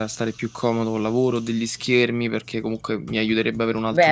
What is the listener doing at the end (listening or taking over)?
taking over